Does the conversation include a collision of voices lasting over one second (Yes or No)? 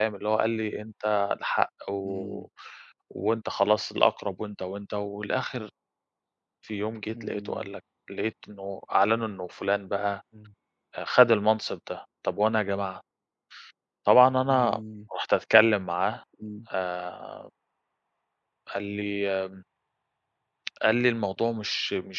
No